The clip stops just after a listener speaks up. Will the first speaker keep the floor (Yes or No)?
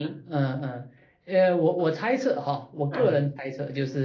Yes